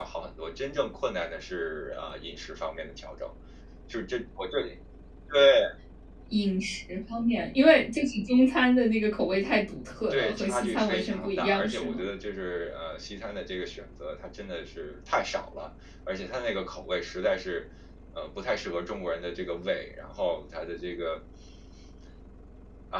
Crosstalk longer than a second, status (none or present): present